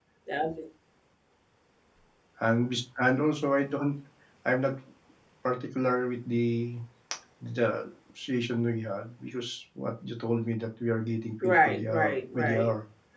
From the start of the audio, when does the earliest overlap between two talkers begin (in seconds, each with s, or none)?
11.4 s